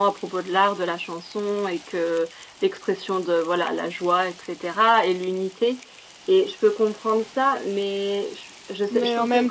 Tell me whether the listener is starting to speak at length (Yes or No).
Yes